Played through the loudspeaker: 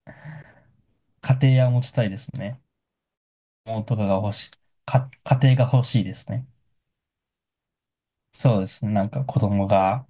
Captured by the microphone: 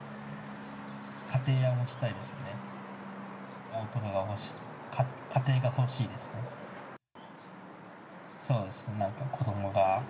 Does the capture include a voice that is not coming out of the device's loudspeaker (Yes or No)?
No